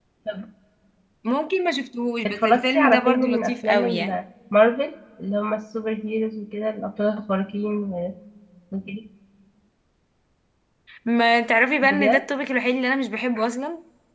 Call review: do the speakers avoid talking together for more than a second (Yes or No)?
No